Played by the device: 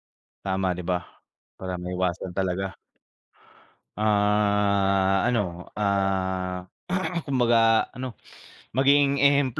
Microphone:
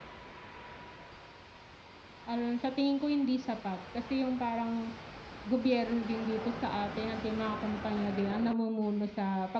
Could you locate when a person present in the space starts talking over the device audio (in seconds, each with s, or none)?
2.2 s